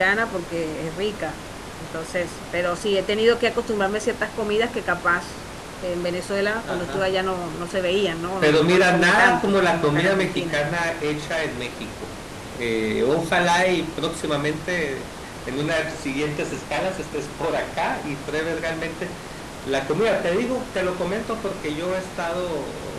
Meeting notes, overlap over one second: present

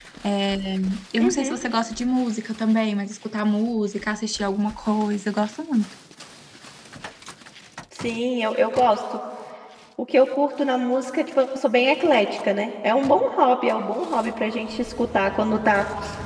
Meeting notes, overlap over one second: none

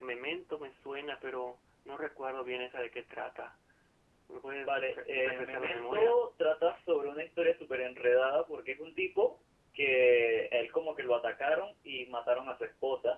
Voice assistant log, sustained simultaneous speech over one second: present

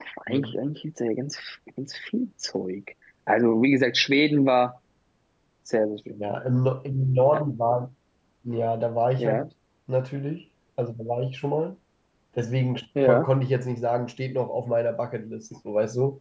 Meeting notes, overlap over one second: none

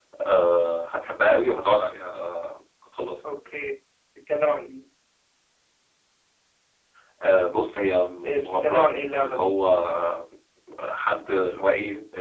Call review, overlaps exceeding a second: present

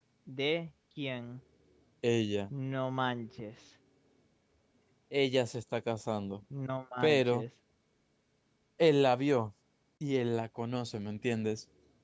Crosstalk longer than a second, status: none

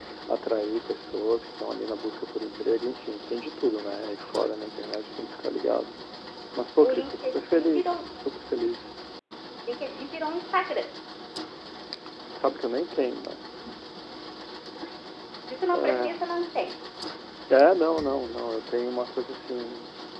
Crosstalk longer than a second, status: present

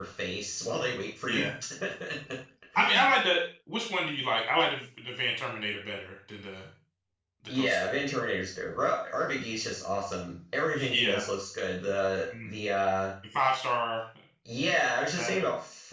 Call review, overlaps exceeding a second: none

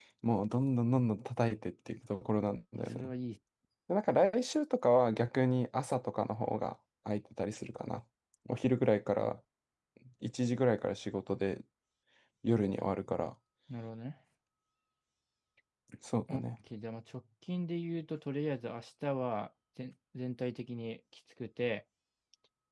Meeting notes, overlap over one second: none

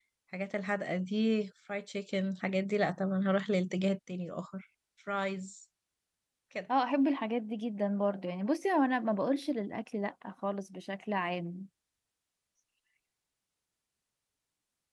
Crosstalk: none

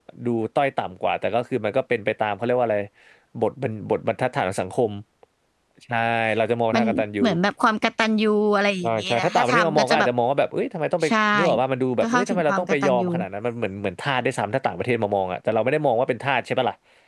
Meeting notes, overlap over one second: present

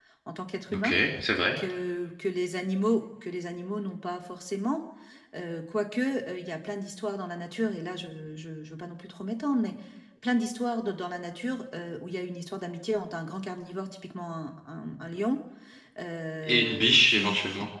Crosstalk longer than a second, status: present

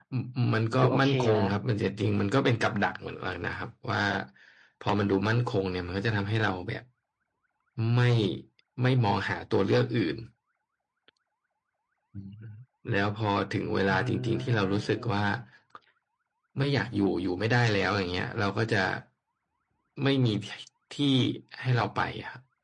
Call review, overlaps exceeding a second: present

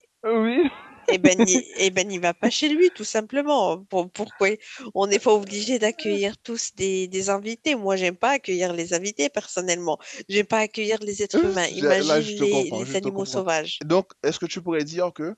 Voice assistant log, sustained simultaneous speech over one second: present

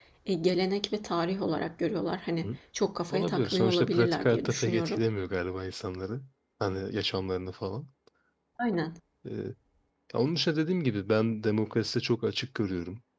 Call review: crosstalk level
present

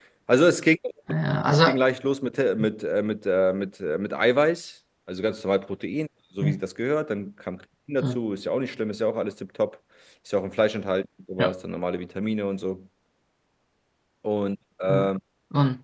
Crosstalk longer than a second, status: none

